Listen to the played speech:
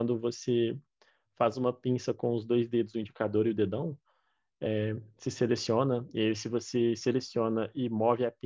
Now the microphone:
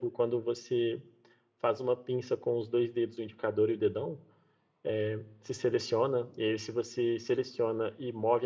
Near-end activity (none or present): none